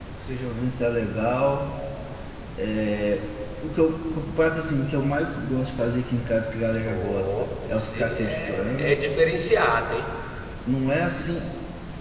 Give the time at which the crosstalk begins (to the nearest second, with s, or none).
7 s